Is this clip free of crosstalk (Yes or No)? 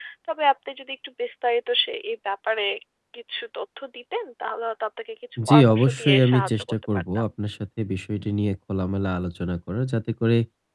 No